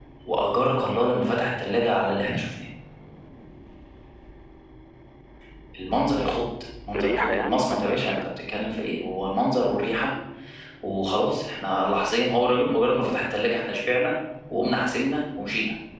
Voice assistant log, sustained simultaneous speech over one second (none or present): present